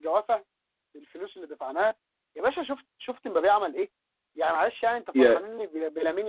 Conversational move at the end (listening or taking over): listening